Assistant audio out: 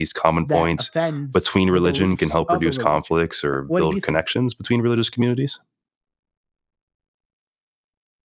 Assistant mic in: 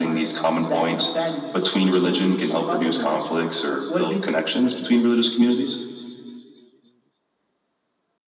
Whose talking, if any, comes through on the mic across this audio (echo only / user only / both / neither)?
echo only